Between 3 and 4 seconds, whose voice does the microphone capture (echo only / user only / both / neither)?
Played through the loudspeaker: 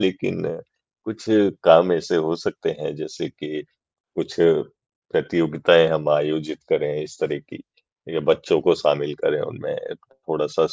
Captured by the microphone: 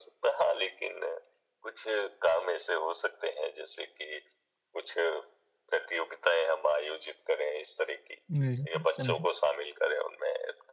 echo only